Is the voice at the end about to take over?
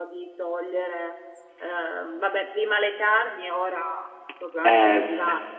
Yes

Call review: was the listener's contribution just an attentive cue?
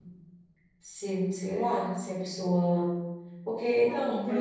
No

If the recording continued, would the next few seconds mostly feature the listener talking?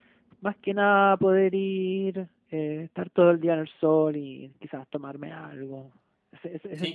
Yes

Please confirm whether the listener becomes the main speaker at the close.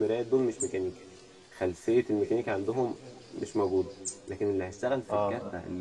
No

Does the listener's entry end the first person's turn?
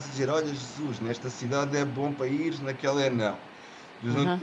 No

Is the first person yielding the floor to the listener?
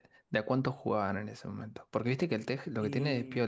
No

